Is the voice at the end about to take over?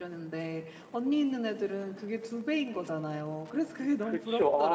Yes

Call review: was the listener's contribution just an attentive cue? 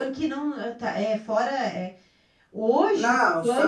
No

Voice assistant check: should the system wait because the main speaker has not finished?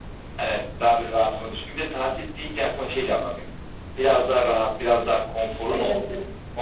Yes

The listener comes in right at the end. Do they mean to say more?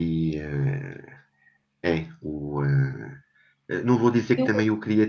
No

